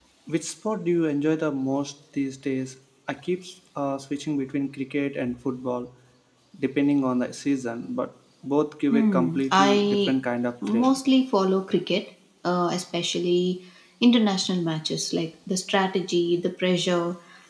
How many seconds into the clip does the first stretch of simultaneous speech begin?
9 s

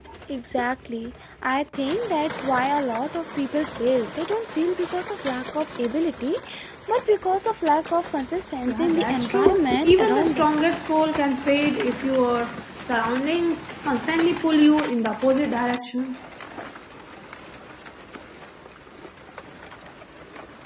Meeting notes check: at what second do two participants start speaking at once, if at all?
9 s

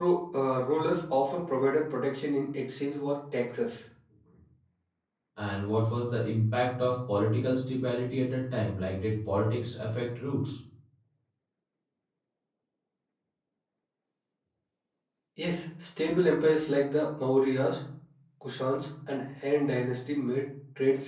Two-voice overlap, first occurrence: none

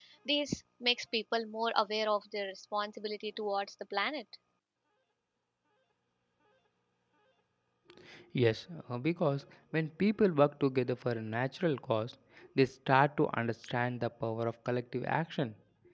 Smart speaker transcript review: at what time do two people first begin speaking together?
none

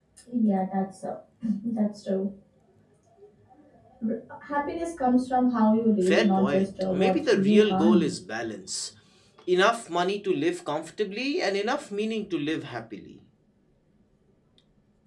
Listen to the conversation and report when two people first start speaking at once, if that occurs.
6 s

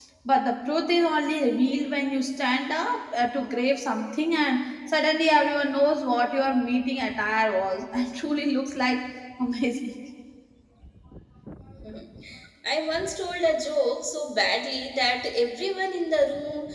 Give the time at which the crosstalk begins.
none

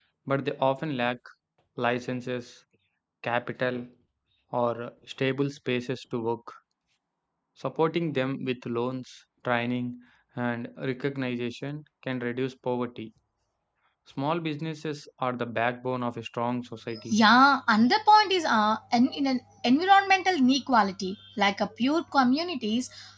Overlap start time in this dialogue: none

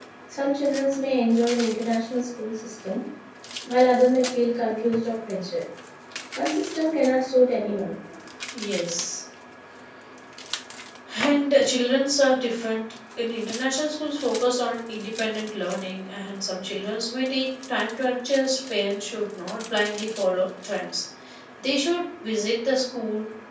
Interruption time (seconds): none

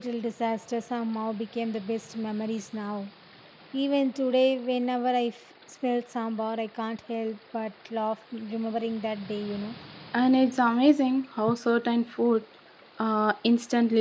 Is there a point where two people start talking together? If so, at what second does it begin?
none

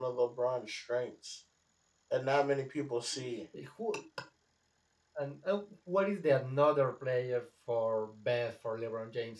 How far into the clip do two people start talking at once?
none

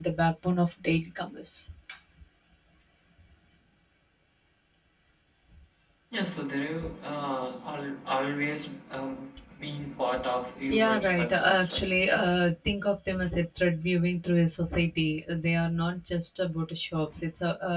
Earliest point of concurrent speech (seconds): 11 s

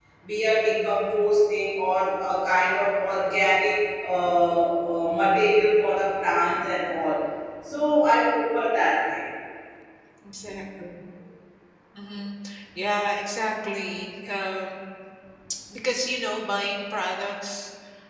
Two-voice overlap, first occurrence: none

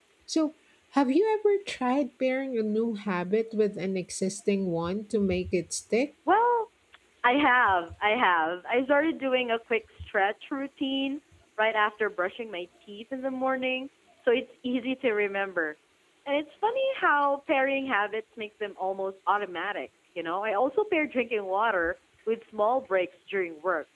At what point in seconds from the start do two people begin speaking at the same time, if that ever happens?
none

